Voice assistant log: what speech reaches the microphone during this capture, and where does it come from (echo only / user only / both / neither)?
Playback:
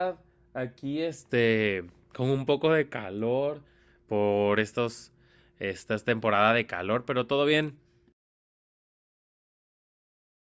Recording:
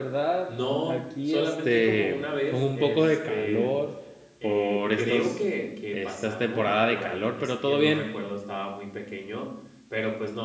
both